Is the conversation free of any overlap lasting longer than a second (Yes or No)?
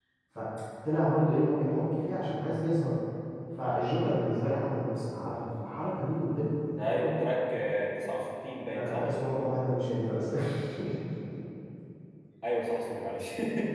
Yes